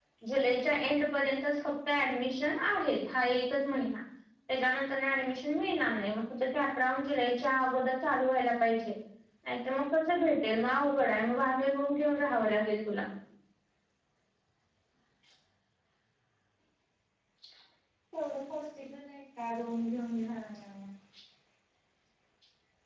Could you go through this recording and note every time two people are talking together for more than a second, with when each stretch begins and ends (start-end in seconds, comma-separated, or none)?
none